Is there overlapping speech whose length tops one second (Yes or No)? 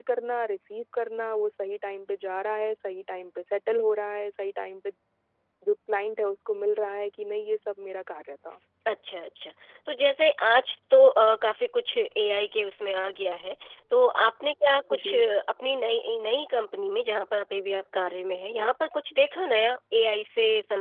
No